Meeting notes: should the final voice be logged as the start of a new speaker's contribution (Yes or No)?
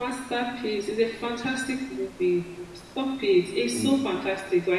No